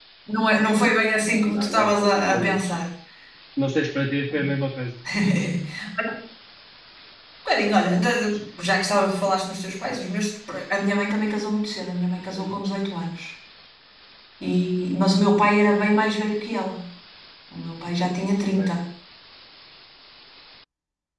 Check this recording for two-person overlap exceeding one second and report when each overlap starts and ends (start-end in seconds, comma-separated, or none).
1.5-2.7